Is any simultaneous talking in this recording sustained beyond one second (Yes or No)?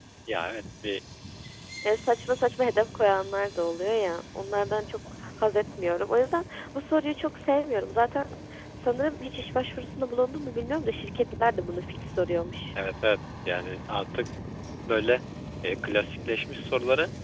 No